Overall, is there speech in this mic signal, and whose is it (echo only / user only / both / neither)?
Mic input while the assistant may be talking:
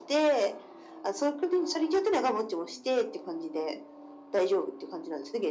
echo only